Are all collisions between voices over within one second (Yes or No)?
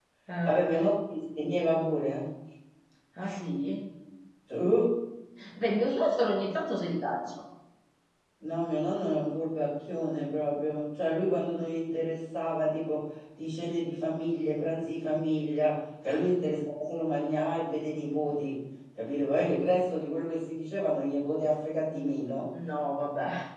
Yes